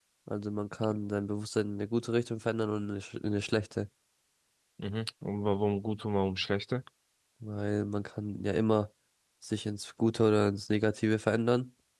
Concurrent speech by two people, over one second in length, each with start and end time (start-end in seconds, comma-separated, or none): none